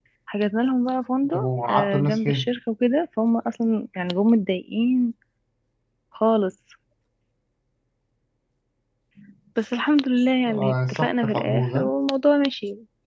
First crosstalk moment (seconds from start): 1.3 s

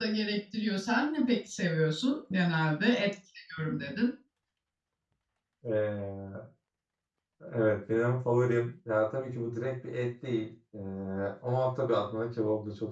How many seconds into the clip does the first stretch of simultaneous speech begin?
none

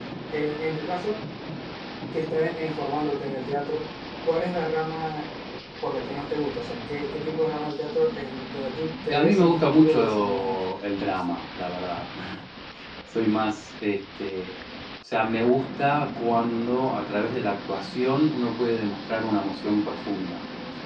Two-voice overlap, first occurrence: 9.1 s

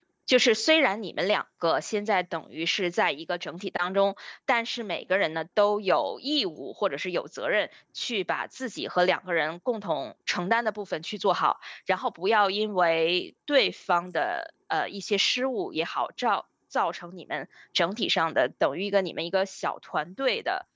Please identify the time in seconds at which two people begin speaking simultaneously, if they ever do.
none

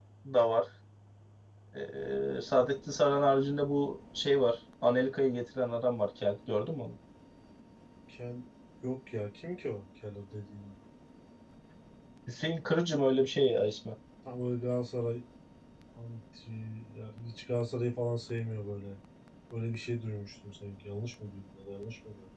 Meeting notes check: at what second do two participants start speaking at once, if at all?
none

